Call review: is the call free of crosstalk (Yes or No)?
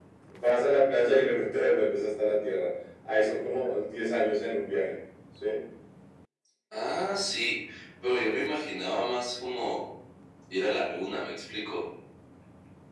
Yes